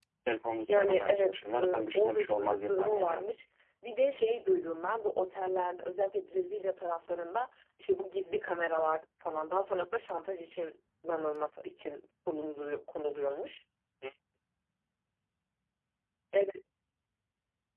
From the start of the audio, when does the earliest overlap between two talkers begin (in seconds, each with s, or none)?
0.7 s